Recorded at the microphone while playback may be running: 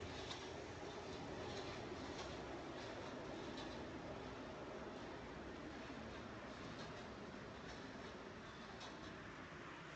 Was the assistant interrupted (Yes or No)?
No